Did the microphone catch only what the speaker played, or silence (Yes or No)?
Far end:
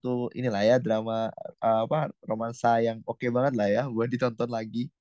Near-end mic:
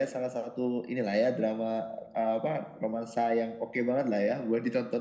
Yes